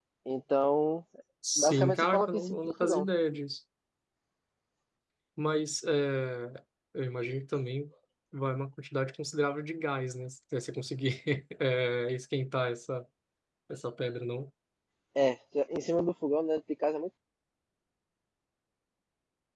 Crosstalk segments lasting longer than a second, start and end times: 1.6-3.1

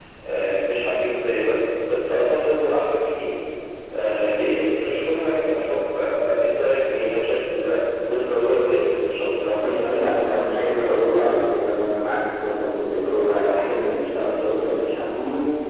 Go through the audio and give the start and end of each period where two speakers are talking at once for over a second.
9.6-11.0

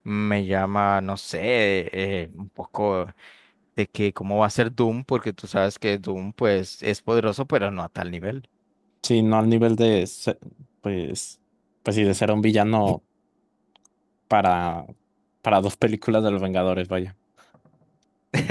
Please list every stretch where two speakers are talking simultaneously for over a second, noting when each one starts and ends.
none

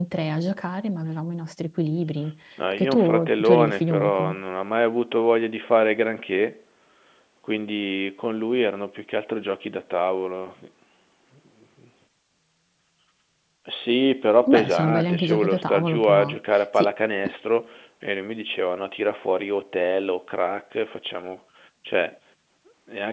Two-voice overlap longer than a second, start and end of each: 2.7-4.3, 14.5-16.4

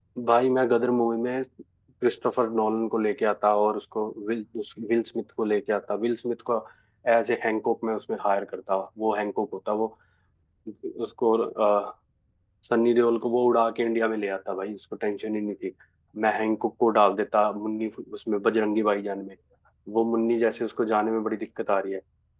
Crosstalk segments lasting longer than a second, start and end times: none

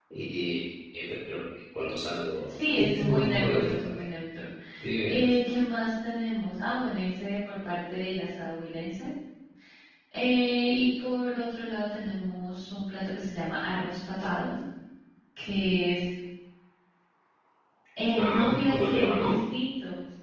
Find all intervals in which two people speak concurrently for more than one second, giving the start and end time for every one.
2.5-4.0, 18.2-19.4

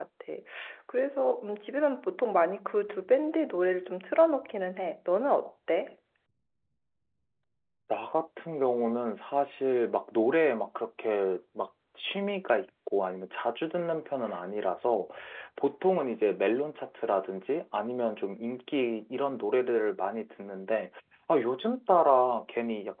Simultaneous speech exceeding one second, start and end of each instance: none

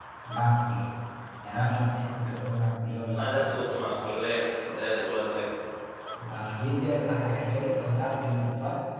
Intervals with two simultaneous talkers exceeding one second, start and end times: none

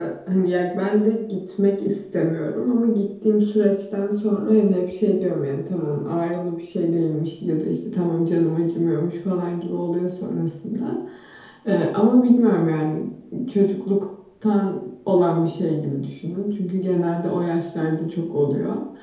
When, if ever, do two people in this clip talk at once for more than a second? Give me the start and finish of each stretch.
none

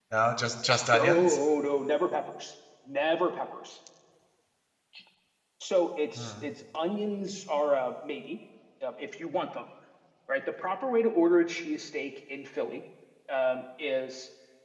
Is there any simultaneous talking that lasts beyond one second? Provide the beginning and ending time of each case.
none

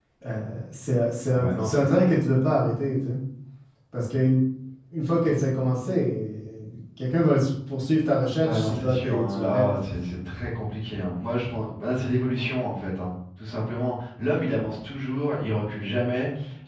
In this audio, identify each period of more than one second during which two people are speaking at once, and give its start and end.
8.4-9.6

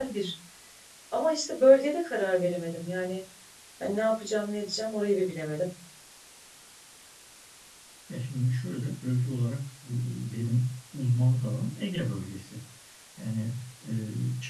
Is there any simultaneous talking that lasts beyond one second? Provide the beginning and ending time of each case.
none

